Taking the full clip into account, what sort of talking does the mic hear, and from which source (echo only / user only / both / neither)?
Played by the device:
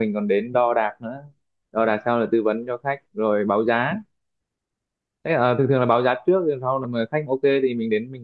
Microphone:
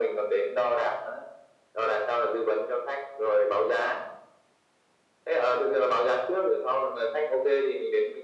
echo only